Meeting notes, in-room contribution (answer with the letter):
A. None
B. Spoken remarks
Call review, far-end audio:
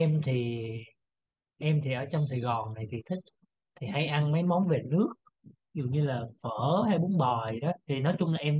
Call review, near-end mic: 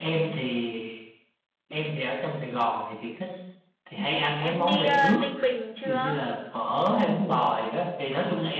B